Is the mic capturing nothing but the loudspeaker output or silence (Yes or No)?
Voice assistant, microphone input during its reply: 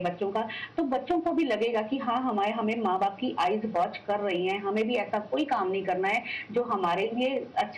Yes